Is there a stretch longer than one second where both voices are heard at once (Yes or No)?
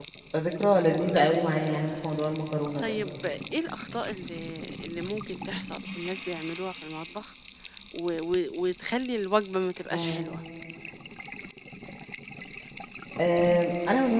No